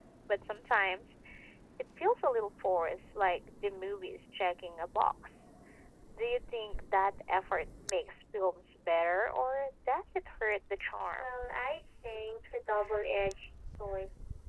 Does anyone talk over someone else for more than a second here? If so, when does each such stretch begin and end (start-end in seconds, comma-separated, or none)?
none